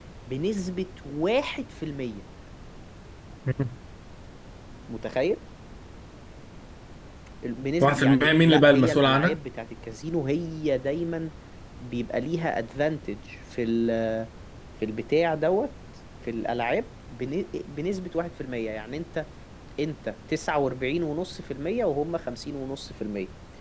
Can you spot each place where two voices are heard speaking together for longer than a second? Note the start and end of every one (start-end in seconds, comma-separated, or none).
7.8-9.4